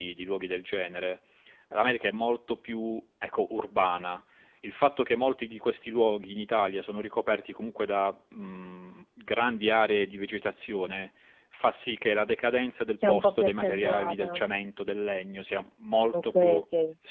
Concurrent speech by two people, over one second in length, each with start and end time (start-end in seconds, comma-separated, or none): 13.1-14.4